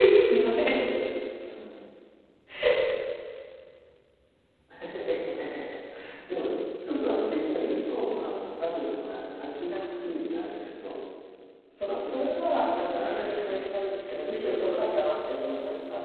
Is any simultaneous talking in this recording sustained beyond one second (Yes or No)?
Yes